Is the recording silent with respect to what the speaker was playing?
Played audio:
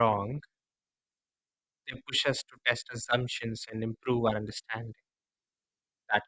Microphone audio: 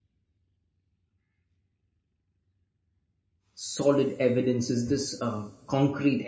Yes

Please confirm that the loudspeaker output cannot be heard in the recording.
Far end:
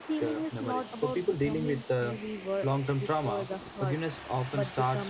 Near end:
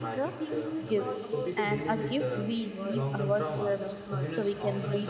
No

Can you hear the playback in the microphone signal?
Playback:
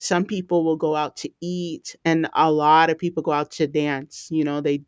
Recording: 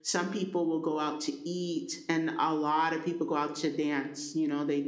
Yes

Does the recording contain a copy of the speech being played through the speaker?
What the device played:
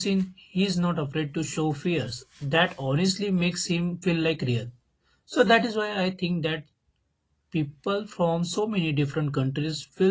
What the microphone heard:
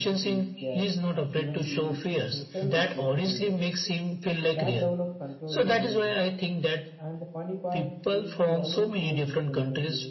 Yes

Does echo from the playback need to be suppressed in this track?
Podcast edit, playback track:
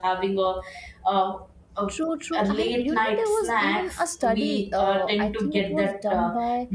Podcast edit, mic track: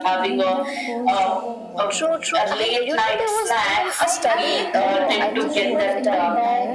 Yes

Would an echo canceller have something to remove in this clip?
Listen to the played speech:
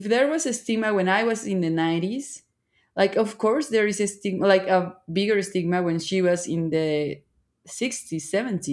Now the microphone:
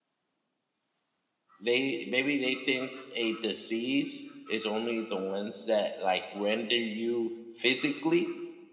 No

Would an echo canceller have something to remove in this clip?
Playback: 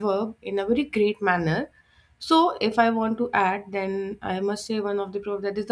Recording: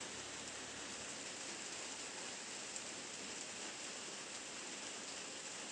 No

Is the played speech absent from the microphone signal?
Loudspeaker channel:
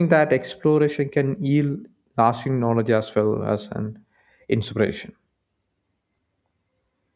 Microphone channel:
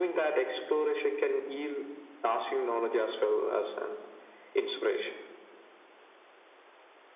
No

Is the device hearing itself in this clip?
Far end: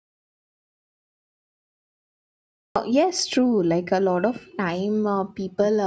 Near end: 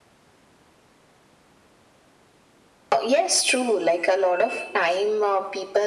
Yes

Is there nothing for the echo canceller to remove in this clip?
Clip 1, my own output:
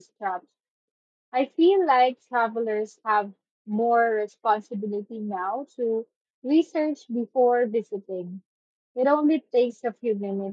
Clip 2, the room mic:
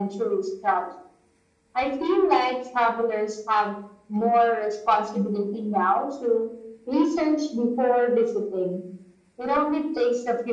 No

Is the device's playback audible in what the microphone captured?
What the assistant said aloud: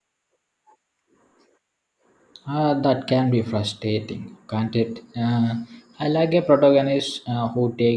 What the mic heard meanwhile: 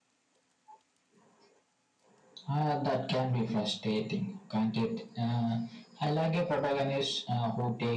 Yes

